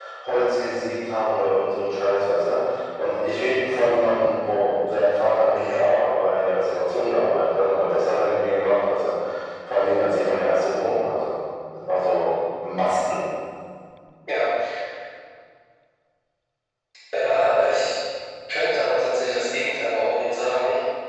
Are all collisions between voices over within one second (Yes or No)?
Yes